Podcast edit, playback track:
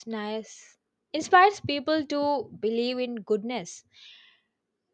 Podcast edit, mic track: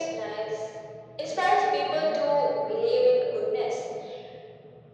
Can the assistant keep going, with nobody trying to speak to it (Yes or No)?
Yes